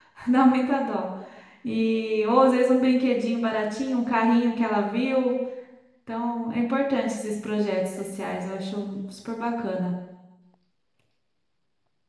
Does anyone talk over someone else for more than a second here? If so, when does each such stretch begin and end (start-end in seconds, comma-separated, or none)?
none